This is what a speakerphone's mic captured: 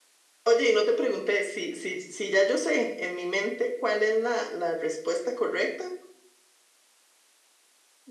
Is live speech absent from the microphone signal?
Yes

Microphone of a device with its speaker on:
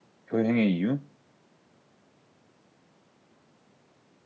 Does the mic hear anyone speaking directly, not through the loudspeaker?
Yes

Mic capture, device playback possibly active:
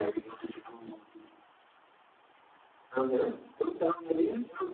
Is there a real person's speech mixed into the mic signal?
No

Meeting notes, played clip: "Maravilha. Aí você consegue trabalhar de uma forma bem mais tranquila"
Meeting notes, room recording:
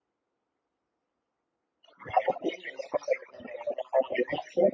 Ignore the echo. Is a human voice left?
No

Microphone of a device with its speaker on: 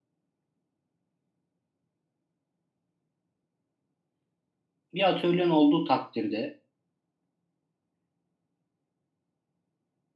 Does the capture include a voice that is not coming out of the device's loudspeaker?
Yes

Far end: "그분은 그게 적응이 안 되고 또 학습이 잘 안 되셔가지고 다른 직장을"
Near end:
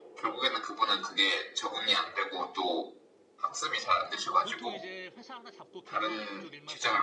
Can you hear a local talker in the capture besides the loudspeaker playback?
Yes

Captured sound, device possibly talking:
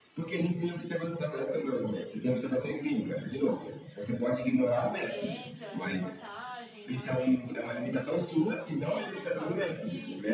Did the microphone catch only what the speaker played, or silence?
No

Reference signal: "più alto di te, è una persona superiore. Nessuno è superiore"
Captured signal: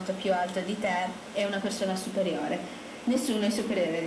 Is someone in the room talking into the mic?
No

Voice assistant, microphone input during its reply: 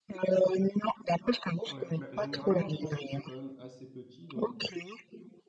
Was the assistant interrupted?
Yes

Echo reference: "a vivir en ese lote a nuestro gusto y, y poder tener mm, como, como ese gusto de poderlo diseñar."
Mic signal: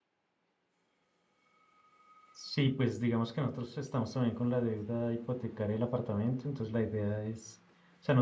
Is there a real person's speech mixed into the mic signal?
Yes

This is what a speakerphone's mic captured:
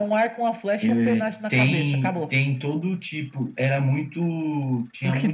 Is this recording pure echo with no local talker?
Yes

